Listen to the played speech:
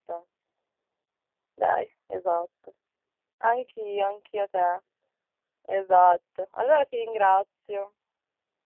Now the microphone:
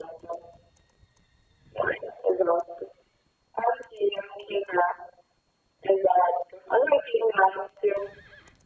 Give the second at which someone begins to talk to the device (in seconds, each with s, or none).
none